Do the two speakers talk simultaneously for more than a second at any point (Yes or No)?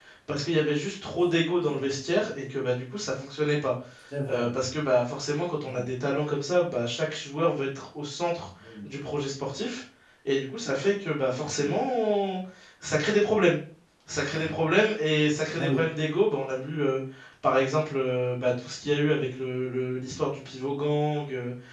No